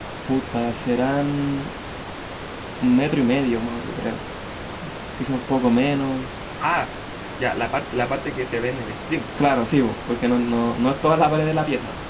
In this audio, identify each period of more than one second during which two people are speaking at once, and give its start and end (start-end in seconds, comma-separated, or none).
none